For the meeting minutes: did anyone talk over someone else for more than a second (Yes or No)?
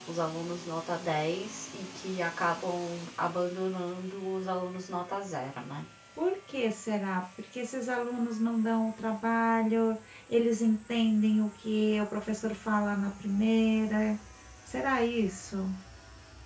No